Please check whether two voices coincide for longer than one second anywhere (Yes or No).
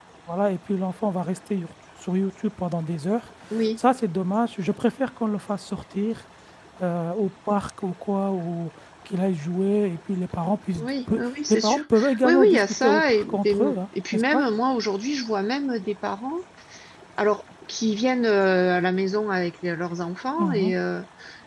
Yes